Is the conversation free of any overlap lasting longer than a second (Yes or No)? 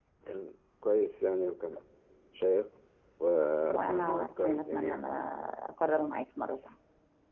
No